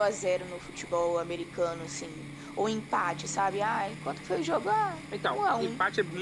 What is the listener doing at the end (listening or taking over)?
taking over